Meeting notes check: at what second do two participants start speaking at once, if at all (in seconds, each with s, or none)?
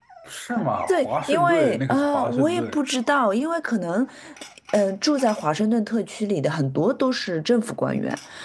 0.9 s